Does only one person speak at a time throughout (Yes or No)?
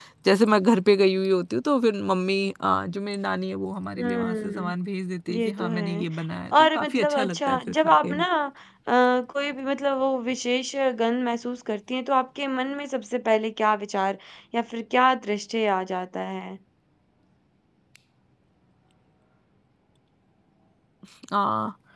No